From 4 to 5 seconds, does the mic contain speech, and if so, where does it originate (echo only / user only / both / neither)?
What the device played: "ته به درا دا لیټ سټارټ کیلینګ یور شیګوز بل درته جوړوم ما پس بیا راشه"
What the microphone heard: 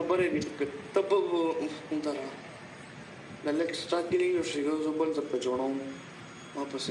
echo only